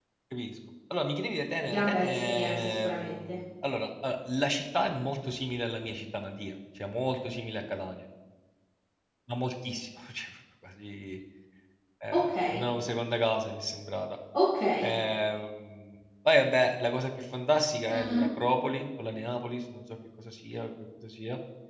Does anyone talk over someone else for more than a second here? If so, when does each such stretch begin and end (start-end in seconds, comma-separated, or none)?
1.6-3.4